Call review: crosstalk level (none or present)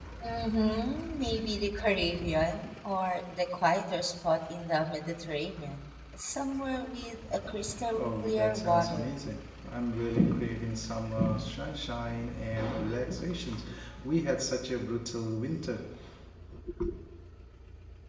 present